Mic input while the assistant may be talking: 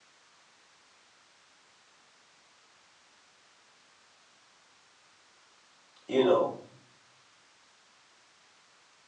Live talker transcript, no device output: You know.

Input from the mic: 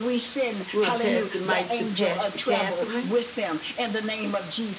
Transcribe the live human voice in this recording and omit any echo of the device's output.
We want to pass the mic to Pastor Catherine.

